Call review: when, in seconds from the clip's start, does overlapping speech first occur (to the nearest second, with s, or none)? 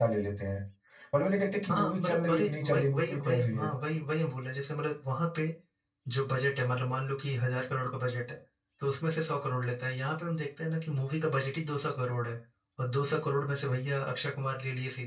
2 s